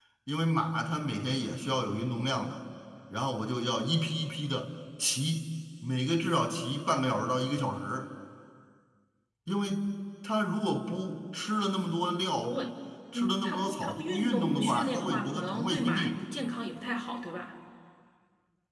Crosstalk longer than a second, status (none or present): present